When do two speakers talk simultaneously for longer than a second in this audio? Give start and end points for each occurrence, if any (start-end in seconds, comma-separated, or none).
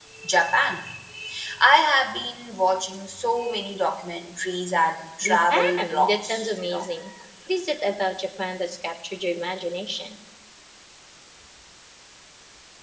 5.2-6.8